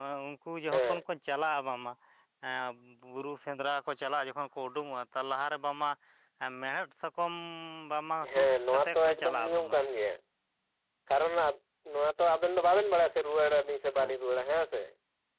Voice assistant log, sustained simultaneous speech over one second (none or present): present